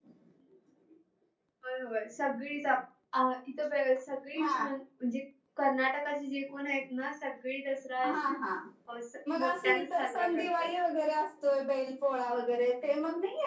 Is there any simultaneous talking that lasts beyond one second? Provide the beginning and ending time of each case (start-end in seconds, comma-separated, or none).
9.4-10.7